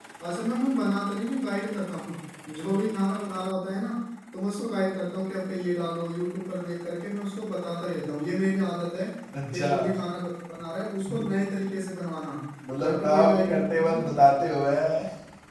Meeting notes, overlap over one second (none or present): present